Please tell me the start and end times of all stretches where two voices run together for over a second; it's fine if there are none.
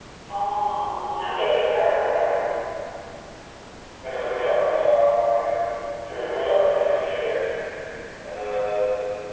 none

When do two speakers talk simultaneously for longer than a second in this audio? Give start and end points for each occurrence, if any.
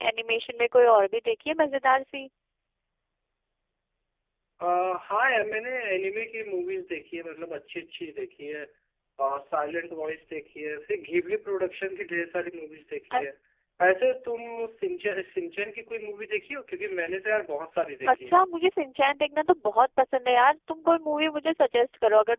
none

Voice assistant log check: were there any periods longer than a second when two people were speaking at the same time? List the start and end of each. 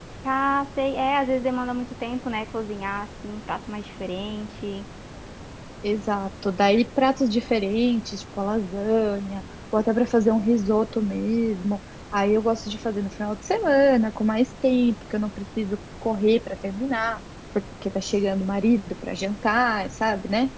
none

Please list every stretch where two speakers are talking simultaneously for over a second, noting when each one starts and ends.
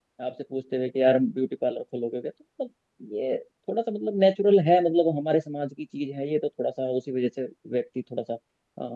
none

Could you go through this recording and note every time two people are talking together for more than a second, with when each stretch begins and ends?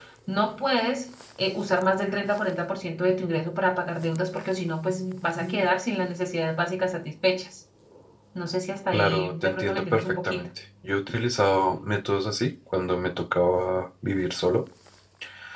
8.9-10.5

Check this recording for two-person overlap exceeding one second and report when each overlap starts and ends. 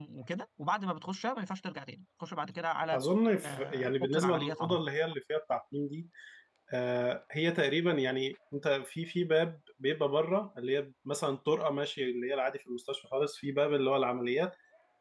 3.4-4.8

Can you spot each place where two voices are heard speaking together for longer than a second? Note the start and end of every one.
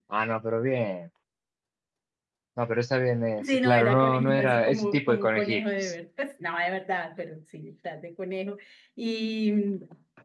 3.5-5.9

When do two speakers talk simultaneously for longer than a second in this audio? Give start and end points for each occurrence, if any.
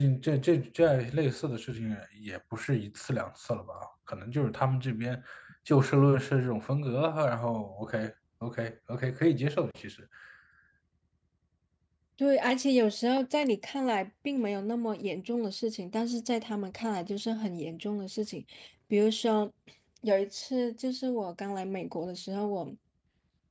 none

